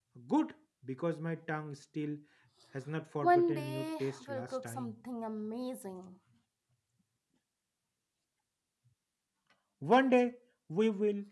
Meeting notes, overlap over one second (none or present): present